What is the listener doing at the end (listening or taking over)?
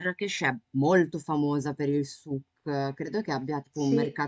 listening